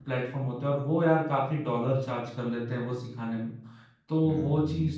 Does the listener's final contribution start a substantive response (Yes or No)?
No